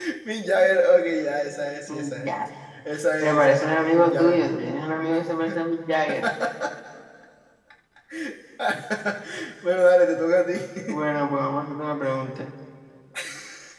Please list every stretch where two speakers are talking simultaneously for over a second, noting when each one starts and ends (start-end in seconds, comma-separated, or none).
3.2-4.5